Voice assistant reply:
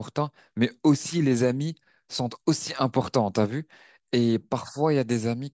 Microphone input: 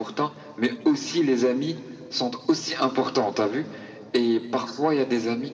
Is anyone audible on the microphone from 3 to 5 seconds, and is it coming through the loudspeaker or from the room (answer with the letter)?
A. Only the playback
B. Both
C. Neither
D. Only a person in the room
A